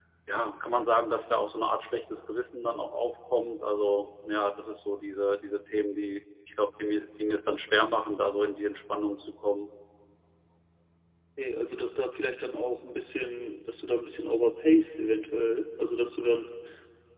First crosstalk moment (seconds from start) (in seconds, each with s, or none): none